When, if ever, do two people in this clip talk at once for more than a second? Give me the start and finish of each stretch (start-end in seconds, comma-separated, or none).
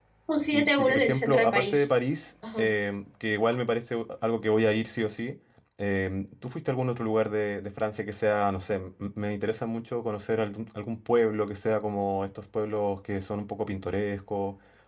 0.5-1.9